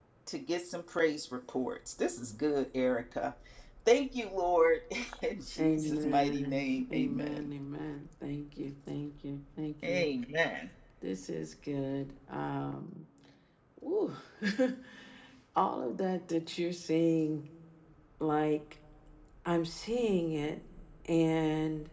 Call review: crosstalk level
present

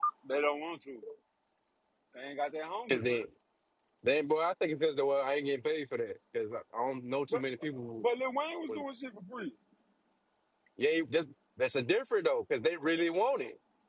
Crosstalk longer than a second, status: none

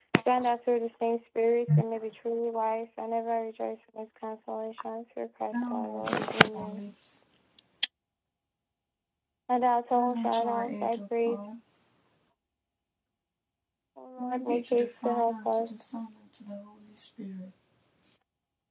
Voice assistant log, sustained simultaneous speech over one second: present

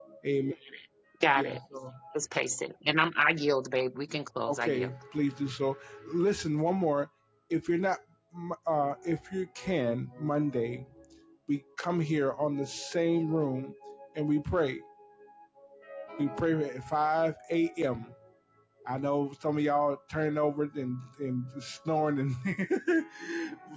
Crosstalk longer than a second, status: none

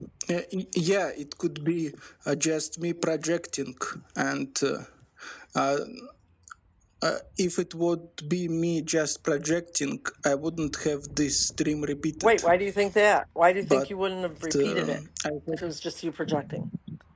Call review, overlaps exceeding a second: none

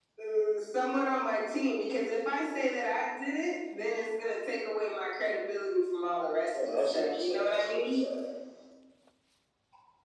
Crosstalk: present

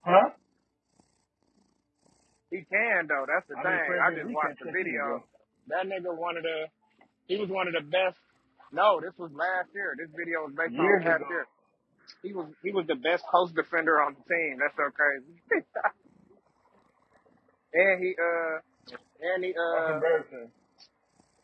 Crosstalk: present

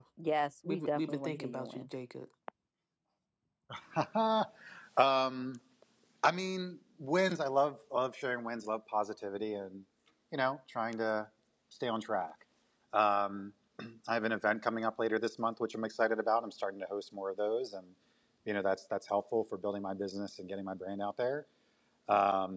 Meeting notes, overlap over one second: present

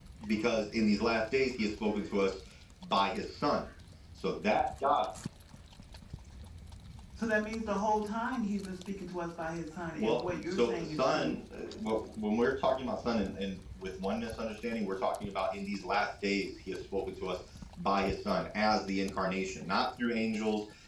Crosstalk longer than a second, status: present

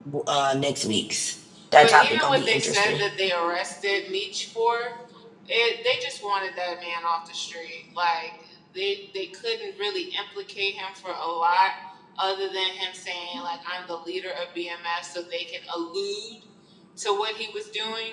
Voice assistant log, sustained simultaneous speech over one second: present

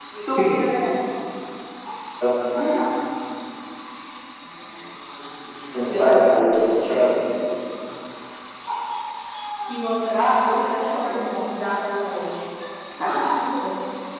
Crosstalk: present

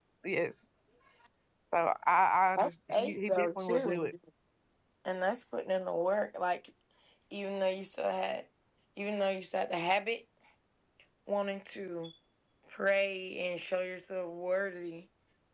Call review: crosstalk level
present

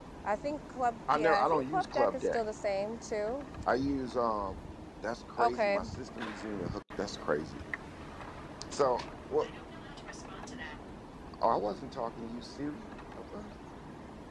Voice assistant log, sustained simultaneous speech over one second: present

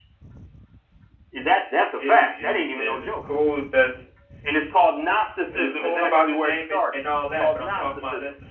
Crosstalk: present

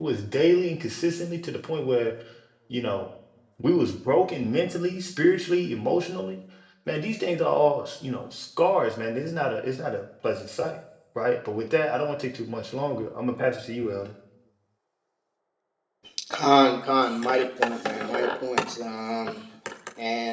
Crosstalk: none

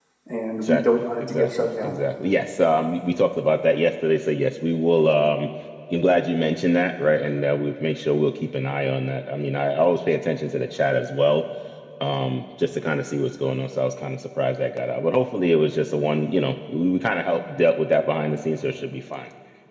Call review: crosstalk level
present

